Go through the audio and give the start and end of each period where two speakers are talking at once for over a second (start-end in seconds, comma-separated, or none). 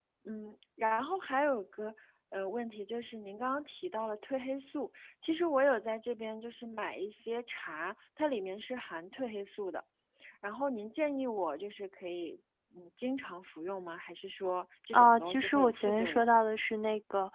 14.9-16.4